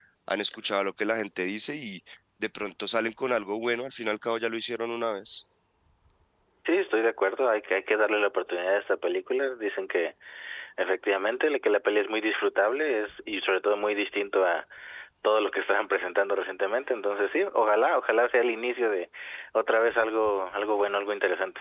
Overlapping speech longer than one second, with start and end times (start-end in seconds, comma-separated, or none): none